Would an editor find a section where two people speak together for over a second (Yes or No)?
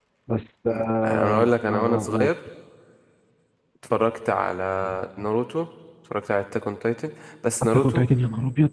Yes